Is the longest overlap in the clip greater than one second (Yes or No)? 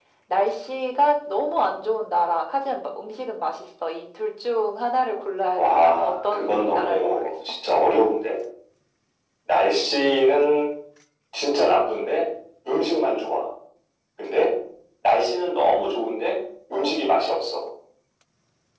Yes